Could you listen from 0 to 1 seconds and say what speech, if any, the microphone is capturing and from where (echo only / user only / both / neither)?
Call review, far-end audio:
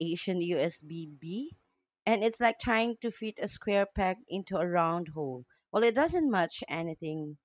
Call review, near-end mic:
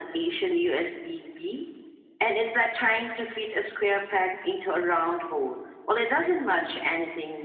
echo only